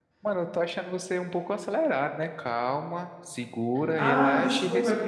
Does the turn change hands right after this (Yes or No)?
Yes